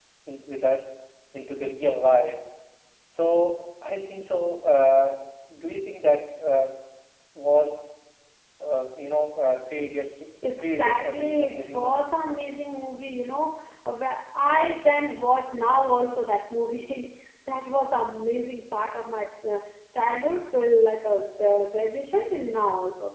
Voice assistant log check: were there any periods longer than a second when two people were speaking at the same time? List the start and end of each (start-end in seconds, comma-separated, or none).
10.6-12.0